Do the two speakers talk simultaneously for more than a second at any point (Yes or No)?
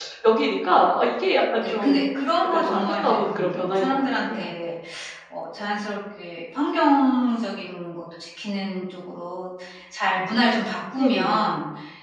Yes